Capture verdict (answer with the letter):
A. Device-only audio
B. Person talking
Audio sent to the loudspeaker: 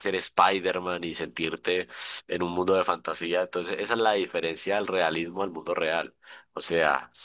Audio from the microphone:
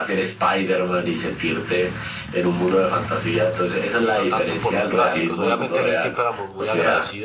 B